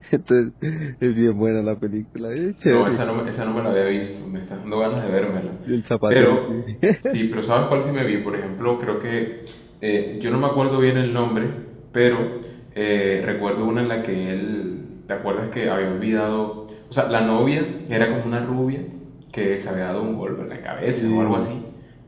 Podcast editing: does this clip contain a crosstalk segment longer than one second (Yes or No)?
No